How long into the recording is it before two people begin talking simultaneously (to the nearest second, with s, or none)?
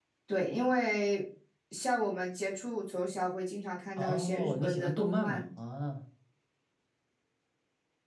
4 s